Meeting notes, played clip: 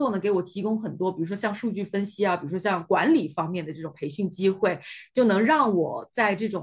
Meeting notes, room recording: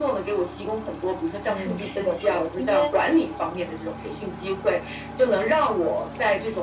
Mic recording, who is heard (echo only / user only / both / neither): both